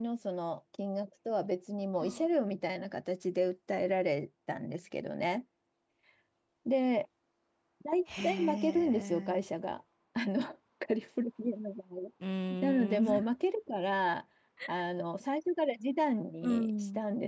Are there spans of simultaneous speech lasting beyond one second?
Yes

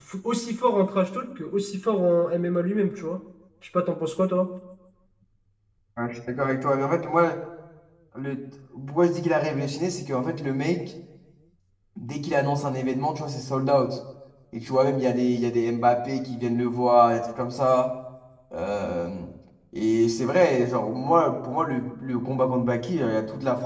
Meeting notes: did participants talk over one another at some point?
No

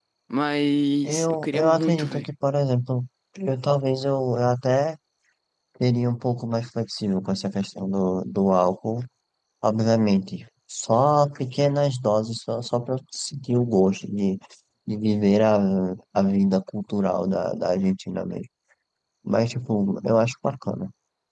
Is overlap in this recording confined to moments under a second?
No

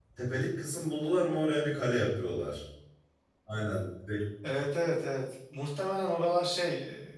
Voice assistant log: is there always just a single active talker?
Yes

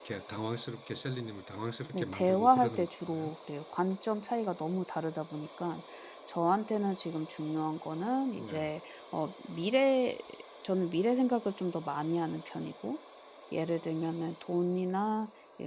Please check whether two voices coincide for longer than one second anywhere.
Yes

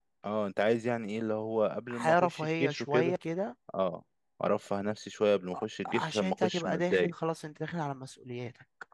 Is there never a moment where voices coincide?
No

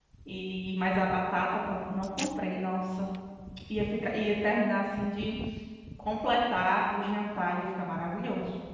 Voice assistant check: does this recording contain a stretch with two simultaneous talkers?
No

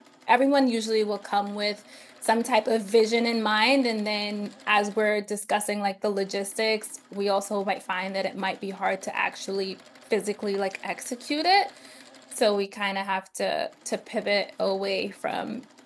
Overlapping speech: No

